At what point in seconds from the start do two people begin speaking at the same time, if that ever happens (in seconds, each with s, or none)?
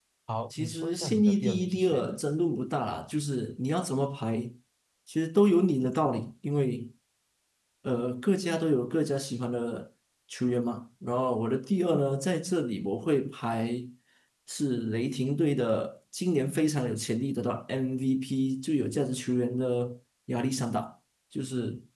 0.5 s